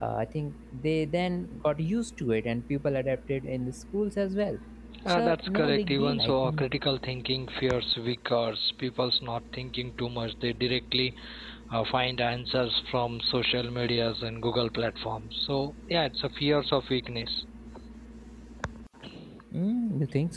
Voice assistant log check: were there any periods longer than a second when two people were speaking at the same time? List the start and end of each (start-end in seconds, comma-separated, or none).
5.1-6.6